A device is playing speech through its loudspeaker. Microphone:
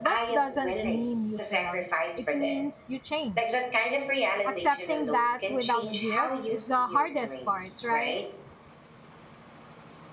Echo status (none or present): present